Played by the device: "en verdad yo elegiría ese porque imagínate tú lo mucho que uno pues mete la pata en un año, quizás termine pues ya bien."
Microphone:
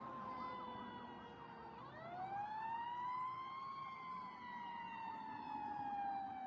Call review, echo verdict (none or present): none